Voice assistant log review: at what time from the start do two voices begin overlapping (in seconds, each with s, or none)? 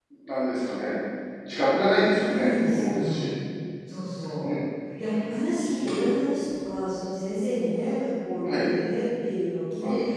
2.1 s